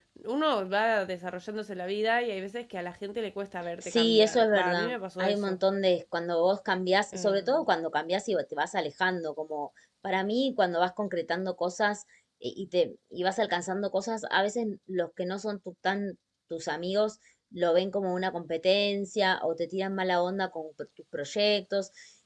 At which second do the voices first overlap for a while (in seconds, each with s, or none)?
3.8 s